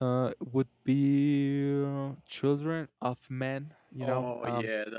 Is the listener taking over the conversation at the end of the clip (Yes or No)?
Yes